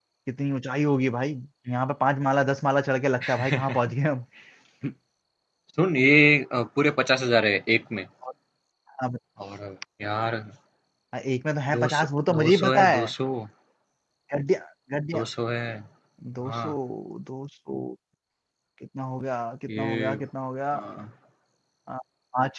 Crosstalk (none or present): present